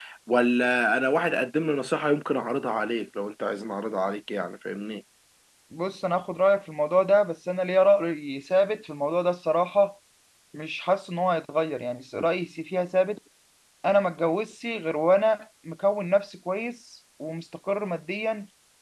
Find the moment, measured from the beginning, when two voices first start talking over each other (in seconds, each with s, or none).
none